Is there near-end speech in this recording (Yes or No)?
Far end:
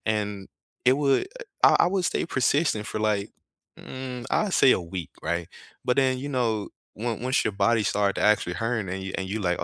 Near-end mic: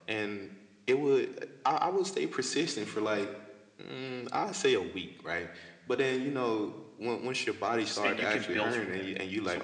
Yes